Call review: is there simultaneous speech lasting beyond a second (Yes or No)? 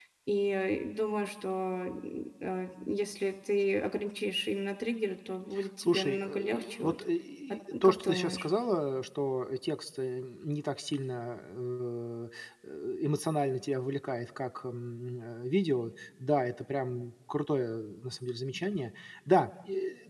Yes